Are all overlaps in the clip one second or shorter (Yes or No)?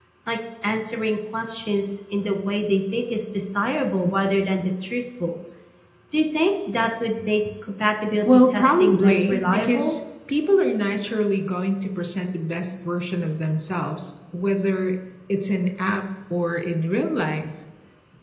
No